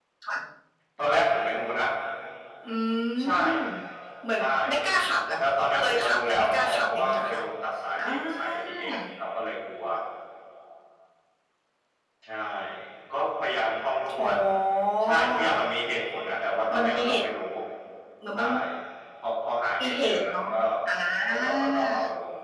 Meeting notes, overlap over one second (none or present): present